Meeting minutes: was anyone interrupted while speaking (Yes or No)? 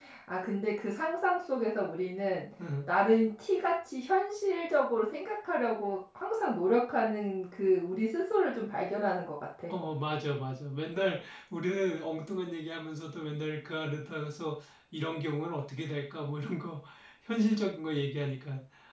No